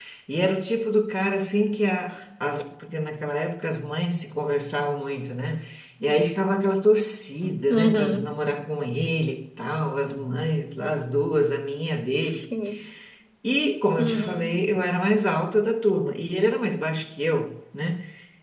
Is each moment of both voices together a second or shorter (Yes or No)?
Yes